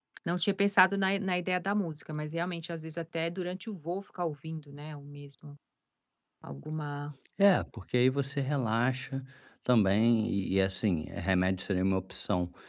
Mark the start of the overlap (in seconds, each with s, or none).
none